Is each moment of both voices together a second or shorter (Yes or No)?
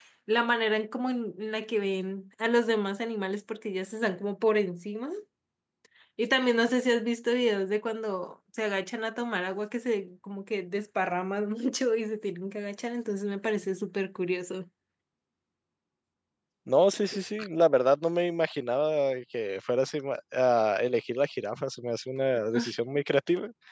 Yes